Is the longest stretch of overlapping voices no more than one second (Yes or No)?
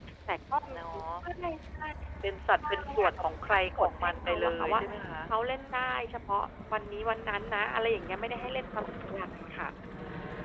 No